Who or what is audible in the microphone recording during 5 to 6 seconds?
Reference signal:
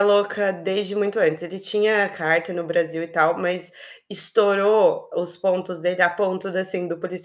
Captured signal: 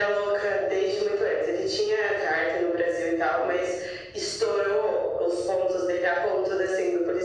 echo only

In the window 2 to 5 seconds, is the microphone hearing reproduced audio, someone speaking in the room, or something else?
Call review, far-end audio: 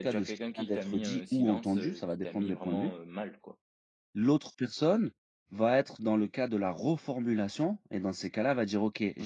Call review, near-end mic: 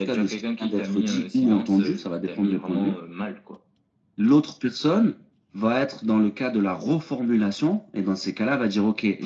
echo only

